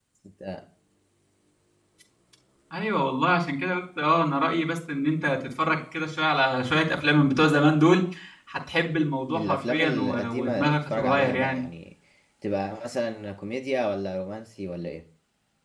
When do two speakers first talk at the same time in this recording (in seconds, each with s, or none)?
9.4 s